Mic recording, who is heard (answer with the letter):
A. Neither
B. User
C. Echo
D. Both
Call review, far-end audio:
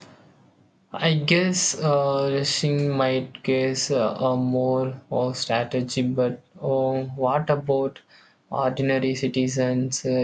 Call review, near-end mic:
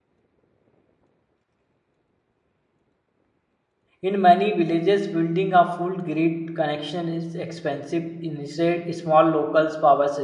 B